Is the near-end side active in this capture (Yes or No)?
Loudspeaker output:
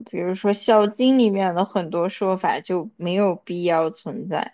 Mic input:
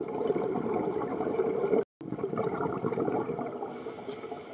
No